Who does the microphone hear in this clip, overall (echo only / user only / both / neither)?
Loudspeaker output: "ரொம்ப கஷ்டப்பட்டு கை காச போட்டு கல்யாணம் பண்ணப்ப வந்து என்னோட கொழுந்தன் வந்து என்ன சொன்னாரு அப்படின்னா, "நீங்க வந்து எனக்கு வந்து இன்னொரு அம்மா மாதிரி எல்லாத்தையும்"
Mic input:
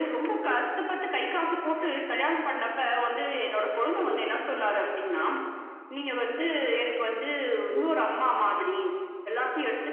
echo only